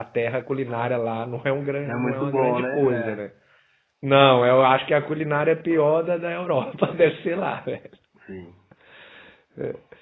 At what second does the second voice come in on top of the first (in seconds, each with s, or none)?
1.9 s